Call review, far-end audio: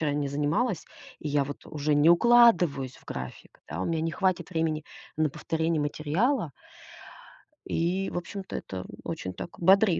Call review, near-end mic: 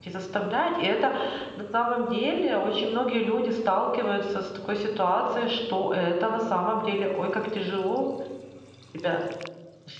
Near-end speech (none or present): present